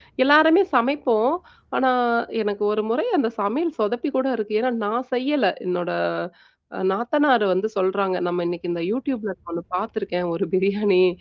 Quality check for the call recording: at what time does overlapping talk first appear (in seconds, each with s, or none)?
none